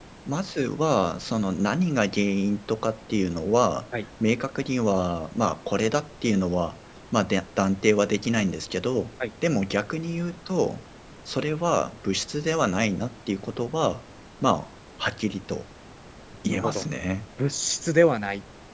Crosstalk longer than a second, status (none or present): none